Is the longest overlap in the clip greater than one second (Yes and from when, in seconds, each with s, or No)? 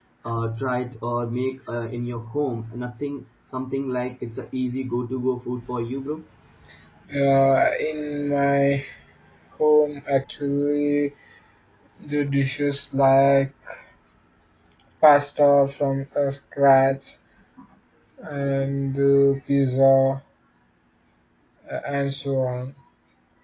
No